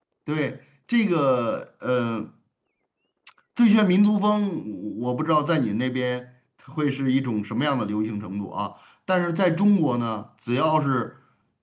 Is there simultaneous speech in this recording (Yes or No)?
No